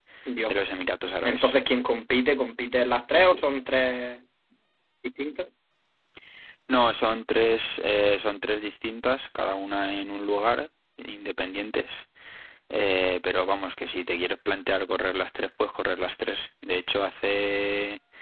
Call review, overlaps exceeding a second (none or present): none